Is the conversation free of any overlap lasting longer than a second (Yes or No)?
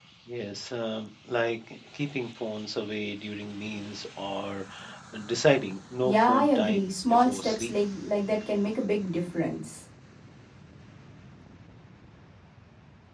No